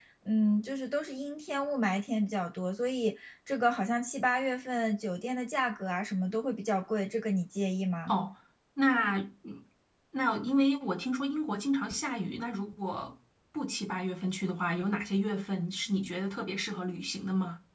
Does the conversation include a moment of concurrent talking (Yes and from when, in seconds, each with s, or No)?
No